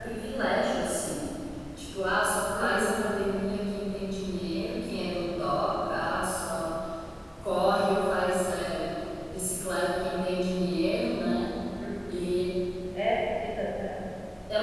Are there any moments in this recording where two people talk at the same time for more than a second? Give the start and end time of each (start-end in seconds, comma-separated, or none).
none